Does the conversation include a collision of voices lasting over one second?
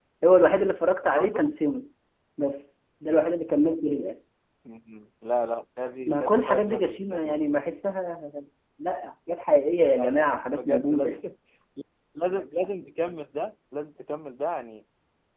Yes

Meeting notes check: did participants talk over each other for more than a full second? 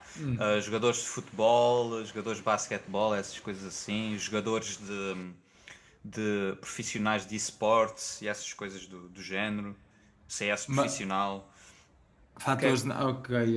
No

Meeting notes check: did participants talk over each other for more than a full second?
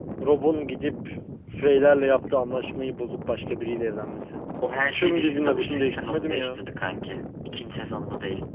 Yes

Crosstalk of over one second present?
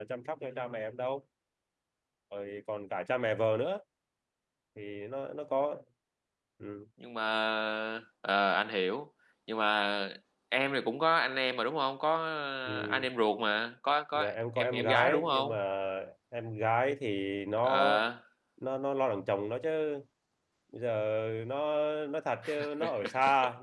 Yes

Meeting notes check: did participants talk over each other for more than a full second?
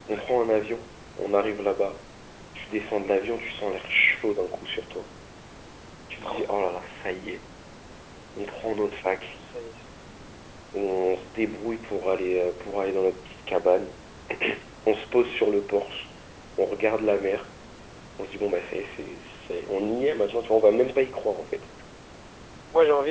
No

